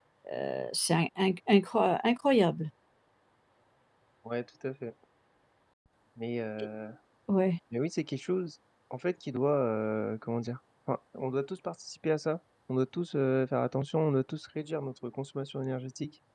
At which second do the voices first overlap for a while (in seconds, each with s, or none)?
none